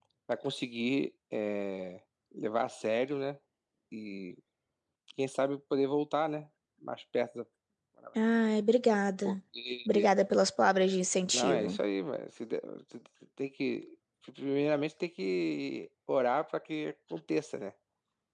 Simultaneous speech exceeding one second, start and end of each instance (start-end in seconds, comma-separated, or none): none